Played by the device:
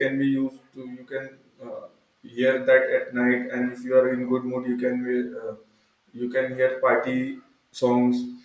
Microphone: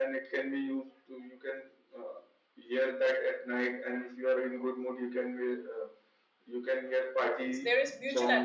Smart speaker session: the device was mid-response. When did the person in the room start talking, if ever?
7.5 s

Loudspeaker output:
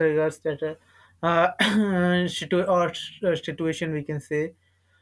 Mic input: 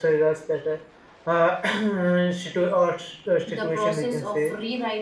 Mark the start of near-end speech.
3.4 s

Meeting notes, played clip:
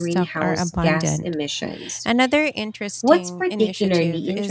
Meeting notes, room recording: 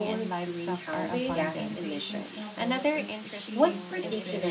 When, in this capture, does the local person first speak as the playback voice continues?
1.0 s

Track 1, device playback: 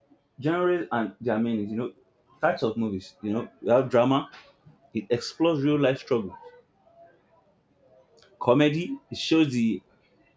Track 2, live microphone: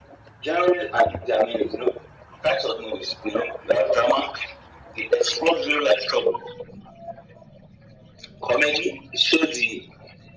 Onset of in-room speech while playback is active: none

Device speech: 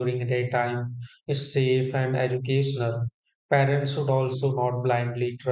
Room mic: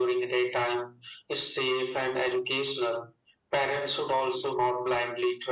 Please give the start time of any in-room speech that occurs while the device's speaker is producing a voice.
none

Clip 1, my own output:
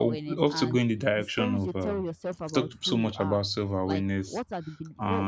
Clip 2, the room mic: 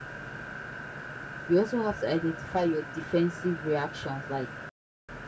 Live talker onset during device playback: 1.4 s

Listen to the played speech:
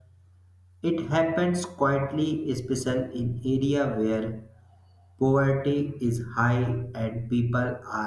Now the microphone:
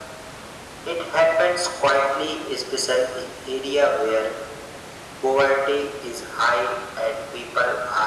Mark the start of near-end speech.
none

